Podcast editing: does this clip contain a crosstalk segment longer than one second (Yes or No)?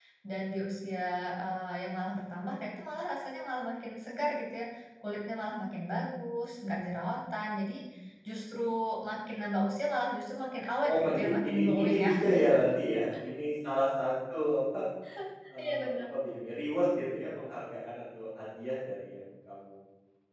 Yes